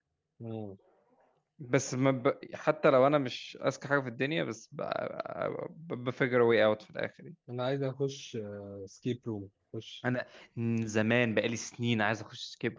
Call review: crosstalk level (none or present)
none